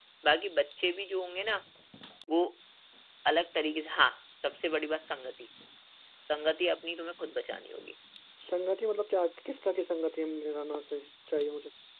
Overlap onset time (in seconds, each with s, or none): none